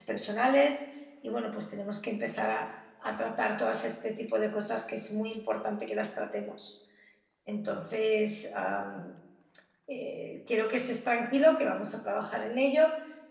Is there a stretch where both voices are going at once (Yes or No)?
No